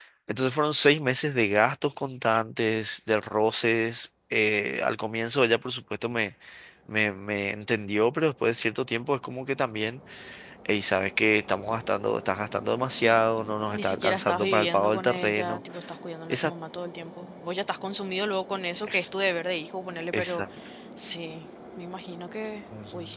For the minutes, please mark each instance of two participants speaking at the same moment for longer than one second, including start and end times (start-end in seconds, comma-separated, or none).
13.7-15.6